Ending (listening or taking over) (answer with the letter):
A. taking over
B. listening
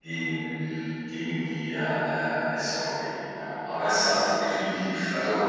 B